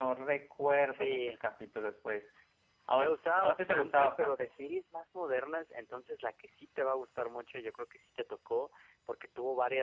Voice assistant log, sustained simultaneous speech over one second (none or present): present